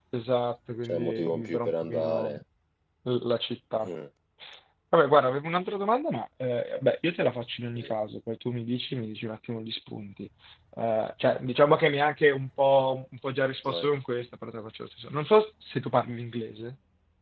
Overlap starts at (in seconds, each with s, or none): 0.8 s